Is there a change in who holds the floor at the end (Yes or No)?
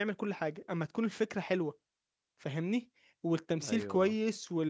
No